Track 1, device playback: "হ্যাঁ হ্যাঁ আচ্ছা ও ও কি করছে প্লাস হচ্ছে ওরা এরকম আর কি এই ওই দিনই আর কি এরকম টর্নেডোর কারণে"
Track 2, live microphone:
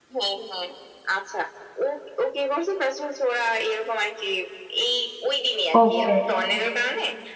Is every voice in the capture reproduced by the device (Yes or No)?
No